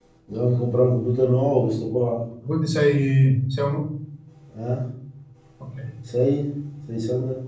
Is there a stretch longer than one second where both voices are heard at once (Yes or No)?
No